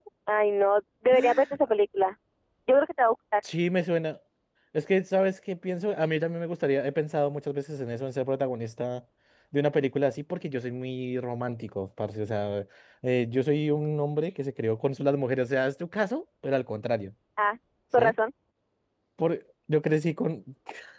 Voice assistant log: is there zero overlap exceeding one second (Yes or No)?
Yes